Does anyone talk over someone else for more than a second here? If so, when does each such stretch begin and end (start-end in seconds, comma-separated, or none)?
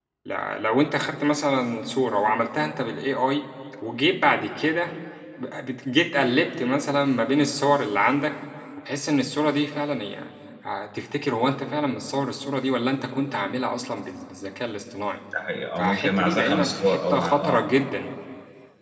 15.8-17.6